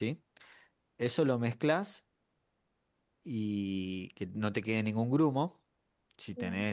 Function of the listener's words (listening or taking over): listening